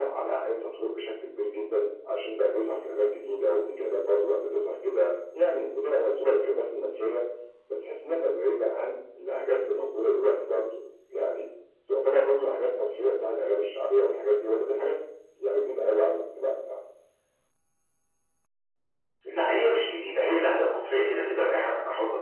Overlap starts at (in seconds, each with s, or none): none